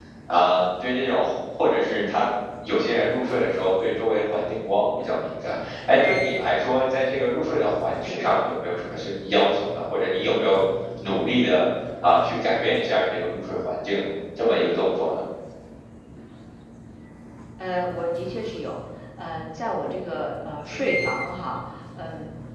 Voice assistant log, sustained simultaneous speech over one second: none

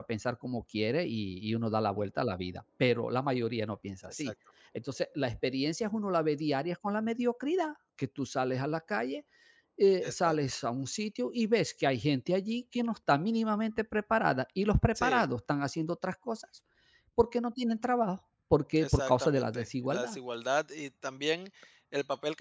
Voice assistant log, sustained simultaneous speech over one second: present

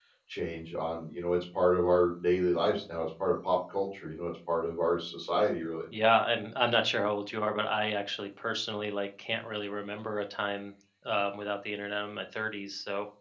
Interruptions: none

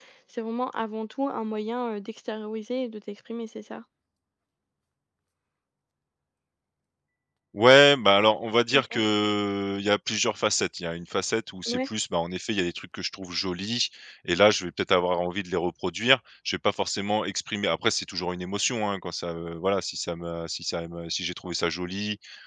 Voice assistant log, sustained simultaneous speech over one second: none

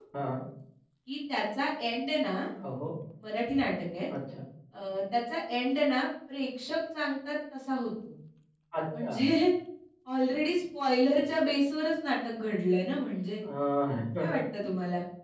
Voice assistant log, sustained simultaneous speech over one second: none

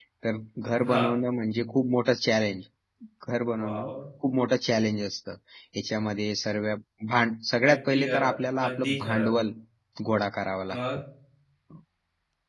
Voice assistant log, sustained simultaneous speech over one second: present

